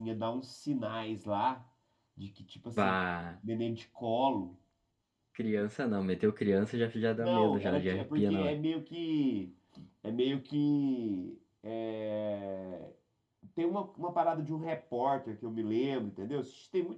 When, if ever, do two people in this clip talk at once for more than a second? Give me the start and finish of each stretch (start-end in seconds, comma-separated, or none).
7.2-8.5